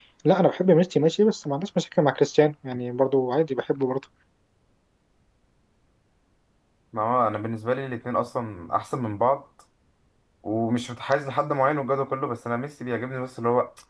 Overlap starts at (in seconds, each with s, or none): none